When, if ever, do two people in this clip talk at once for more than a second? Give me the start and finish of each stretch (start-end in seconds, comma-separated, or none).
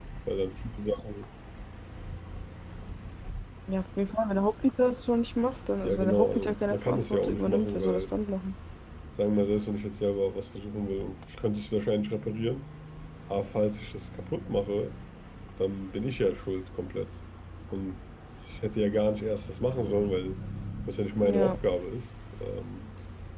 5.8-8.0